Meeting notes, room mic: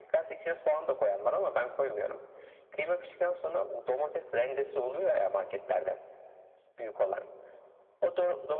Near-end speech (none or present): none